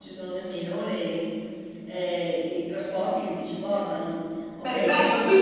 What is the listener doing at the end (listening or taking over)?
taking over